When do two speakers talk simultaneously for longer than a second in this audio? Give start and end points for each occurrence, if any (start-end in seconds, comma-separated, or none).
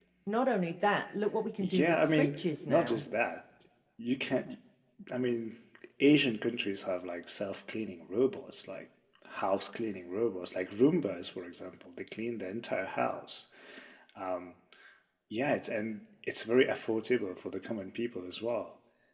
1.6-3.0